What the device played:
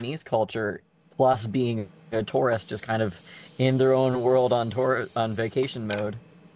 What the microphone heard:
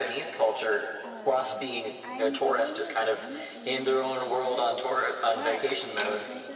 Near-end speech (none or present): present